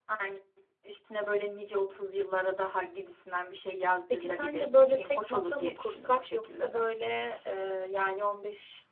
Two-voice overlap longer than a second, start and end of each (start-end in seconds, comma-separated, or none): 4.1-6.8